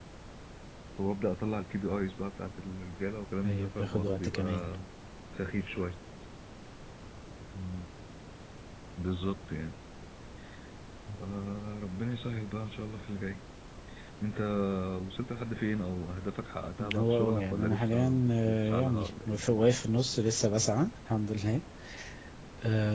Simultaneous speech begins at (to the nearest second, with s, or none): 3 s